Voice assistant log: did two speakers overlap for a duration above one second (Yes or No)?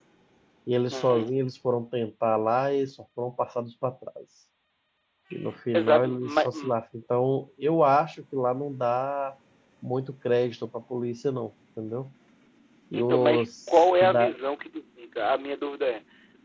Yes